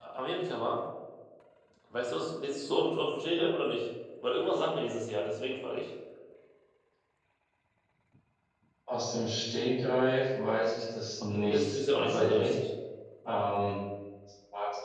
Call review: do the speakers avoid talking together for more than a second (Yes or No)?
No